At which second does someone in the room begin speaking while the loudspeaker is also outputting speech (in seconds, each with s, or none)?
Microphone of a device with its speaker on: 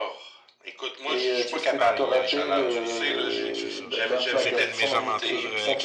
1.8 s